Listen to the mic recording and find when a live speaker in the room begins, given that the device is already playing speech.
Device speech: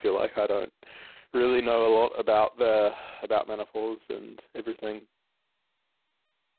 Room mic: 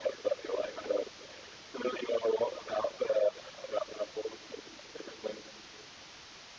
none

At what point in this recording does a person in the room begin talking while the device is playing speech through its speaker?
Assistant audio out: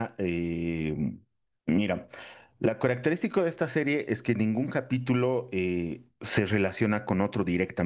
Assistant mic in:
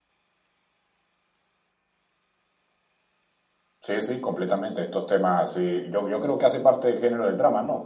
3.8 s

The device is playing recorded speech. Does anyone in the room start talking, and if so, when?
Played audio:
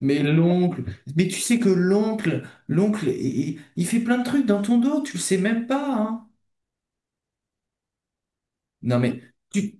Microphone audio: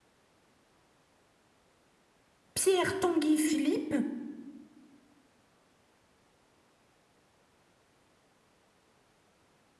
2.5 s

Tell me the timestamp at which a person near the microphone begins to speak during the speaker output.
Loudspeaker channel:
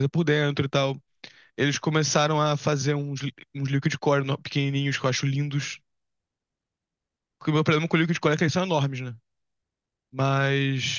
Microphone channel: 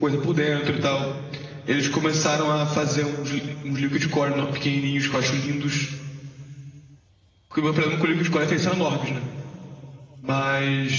none

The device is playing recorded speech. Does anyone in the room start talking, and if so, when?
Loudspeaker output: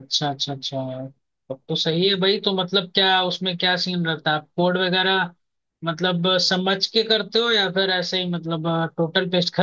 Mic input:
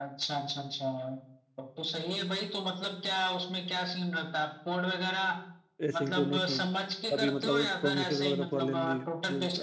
5.9 s

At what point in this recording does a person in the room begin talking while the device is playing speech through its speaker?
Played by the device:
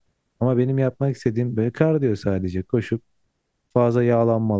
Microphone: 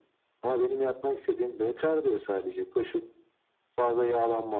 none

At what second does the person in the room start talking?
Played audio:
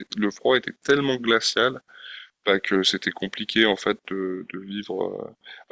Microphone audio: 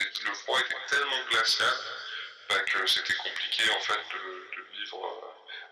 none

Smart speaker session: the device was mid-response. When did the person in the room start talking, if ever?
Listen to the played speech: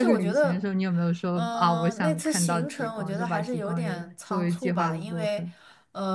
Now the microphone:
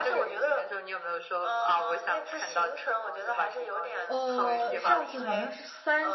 4.1 s

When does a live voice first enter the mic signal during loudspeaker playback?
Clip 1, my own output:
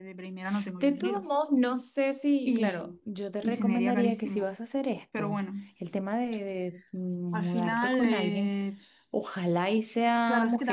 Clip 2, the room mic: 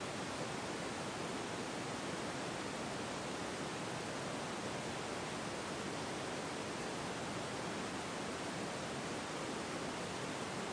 none

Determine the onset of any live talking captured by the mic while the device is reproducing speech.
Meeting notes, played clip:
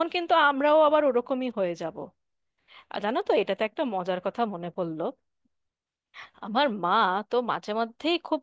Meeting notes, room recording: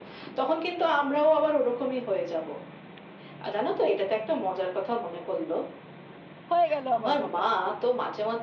6.5 s

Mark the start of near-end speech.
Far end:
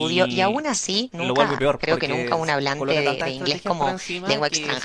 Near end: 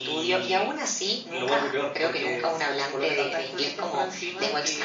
none

